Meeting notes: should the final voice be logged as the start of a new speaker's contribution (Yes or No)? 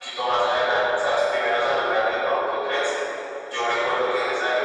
No